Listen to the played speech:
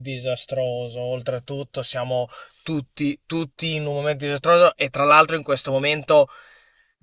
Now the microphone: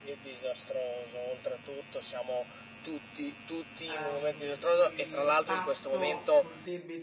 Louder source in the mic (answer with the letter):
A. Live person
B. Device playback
B